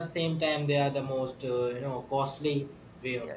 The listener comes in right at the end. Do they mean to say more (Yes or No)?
Yes